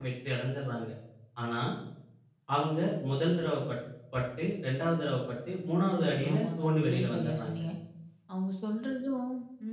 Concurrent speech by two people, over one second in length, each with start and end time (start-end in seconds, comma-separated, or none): 5.7-7.6